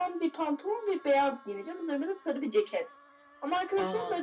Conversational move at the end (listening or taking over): listening